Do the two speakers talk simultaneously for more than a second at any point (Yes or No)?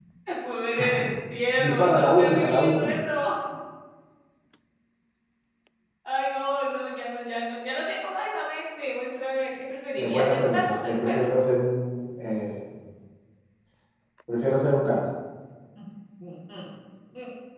Yes